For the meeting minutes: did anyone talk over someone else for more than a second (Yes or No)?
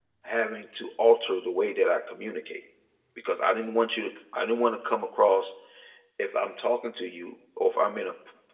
No